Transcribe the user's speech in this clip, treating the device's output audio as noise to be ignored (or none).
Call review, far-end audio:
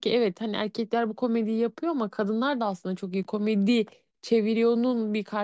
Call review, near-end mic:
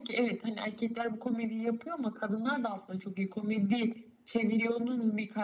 none